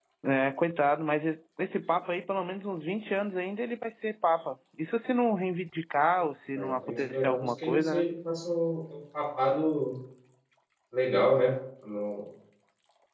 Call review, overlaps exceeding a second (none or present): present